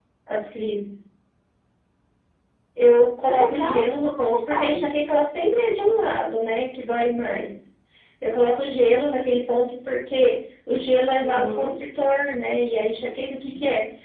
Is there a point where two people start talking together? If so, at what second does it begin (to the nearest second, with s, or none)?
3 s